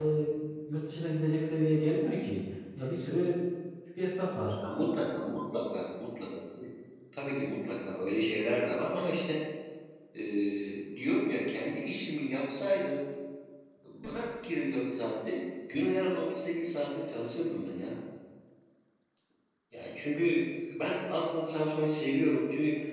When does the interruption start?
none

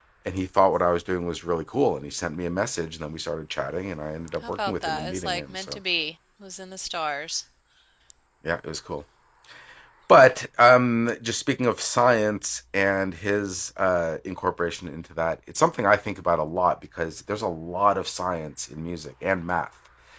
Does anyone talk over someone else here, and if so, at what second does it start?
4.4 s

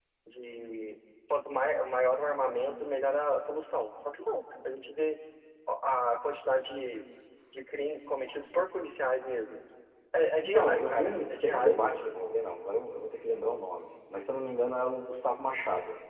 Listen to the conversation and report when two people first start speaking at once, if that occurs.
10.4 s

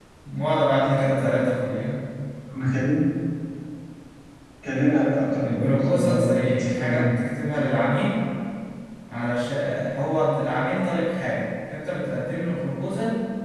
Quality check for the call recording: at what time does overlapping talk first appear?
5.4 s

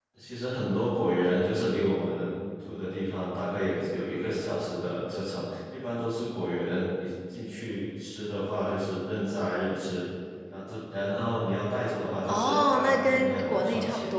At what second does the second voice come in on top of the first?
12.3 s

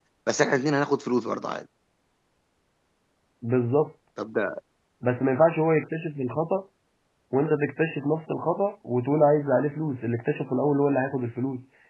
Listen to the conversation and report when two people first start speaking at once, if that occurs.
none

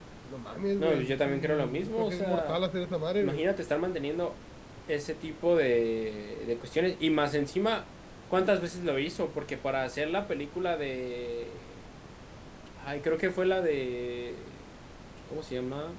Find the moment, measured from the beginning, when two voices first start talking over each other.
0.8 s

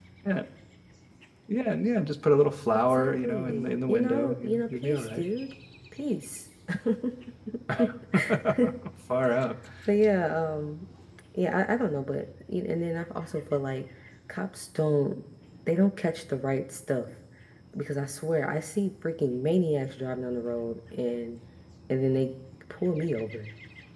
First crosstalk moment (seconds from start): 2.9 s

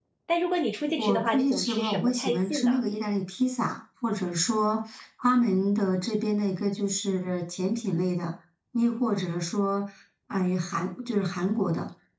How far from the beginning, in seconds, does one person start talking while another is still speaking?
1.0 s

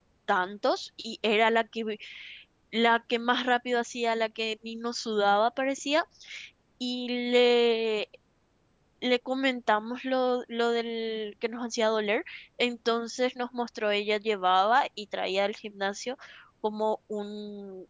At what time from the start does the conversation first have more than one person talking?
none

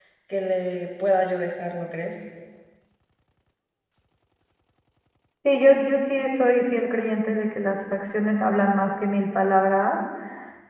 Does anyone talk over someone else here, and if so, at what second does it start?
none

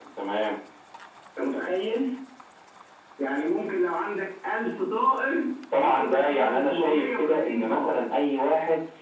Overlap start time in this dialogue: 5.7 s

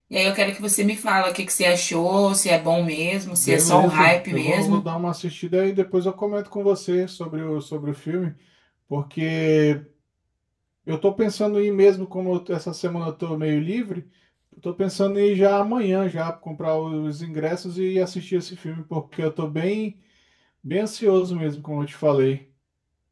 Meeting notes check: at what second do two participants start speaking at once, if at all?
3.3 s

